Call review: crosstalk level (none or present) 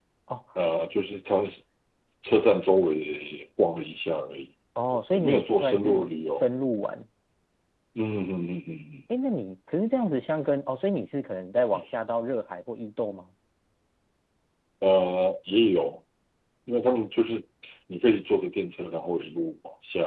present